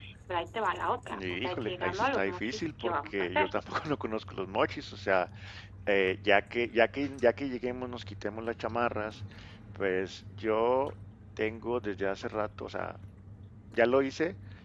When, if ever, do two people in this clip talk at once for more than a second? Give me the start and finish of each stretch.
1.1-3.5

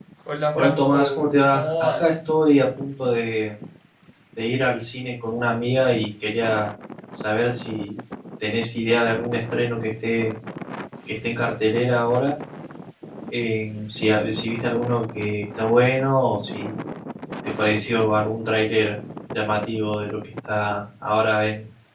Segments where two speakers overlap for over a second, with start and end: 0.6-2.1

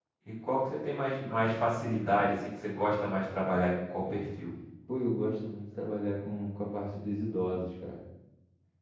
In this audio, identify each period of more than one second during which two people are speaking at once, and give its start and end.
none

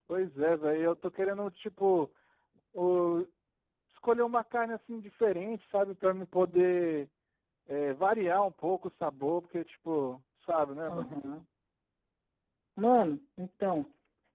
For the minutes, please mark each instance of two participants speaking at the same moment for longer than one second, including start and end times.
none

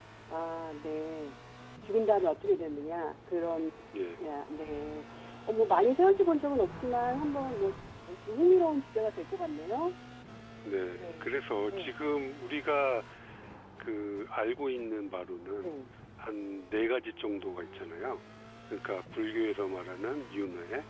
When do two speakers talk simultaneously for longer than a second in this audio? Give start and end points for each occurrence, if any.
none

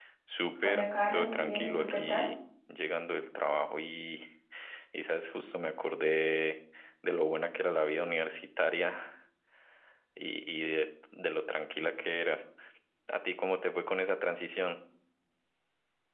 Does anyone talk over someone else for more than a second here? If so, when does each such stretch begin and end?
0.6-2.3

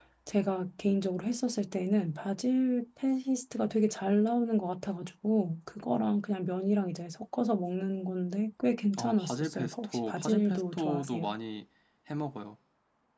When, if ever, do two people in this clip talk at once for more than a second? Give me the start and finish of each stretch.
9.0-11.3

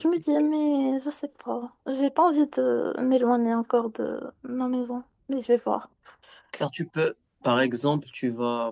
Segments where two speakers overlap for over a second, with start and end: none

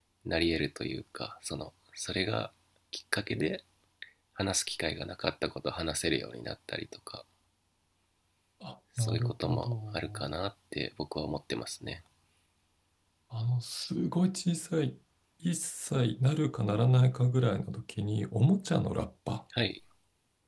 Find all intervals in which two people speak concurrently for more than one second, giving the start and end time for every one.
9.0-10.3

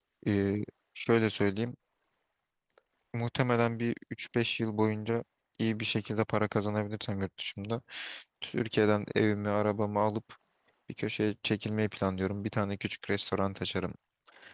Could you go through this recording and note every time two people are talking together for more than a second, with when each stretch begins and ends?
none

